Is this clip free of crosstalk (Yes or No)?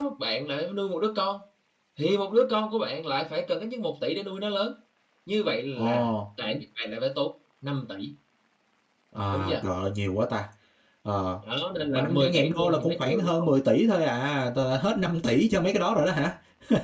No